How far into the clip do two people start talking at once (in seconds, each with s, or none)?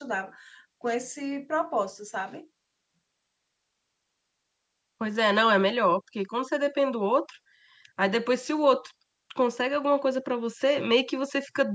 none